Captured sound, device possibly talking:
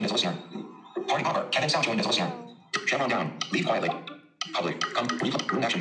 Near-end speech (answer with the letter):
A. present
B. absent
A